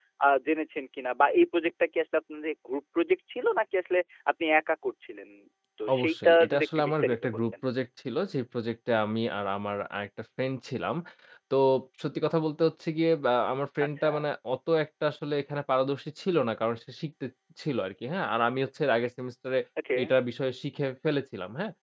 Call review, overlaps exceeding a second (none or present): present